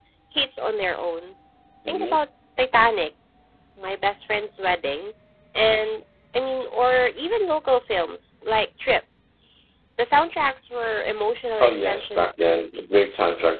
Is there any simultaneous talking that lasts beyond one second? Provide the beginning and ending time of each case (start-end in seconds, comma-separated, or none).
11.6-13.1